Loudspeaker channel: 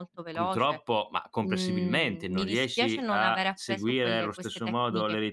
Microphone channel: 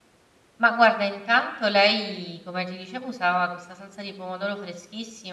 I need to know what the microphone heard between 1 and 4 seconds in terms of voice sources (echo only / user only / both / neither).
user only